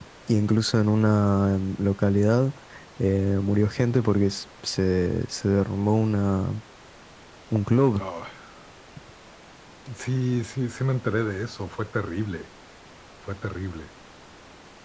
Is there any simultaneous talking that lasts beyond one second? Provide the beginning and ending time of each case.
none

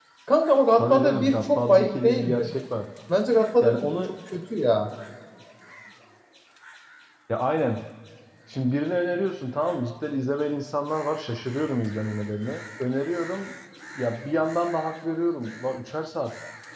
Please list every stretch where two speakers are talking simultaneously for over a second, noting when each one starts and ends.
0.8-2.5

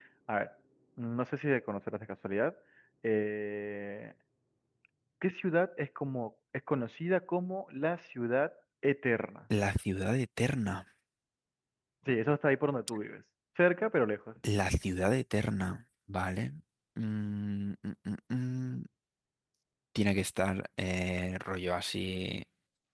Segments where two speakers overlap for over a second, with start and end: none

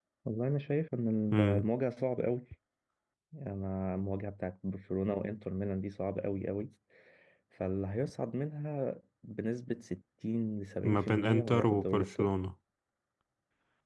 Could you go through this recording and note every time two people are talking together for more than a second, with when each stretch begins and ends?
10.8-12.3

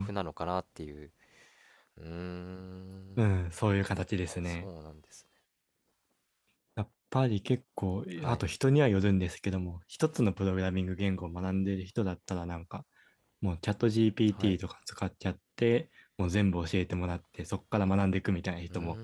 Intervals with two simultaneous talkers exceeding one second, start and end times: none

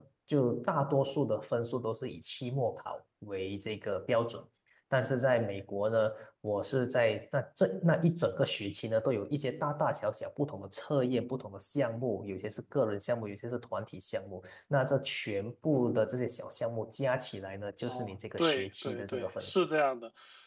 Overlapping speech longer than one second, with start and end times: 17.9-19.7

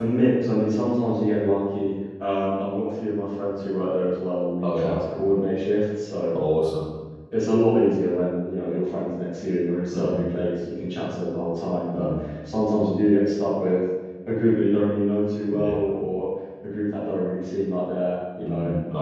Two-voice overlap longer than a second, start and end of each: none

